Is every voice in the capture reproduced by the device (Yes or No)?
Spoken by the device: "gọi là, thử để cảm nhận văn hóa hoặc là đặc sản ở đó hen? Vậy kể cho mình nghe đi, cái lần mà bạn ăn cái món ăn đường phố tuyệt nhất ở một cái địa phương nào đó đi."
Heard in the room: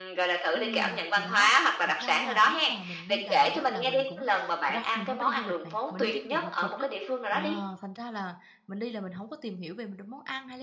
No